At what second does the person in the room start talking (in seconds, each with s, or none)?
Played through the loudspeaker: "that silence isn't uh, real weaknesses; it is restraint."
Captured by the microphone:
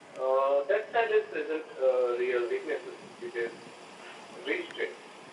none